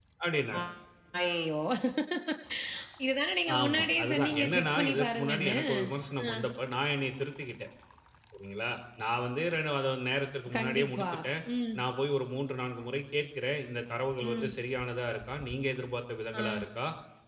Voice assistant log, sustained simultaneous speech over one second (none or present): present